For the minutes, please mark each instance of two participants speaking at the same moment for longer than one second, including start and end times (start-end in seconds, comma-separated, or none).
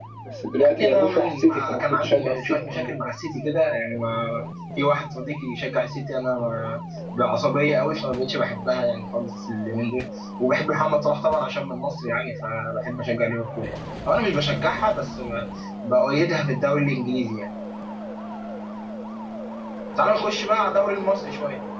0.6-2.9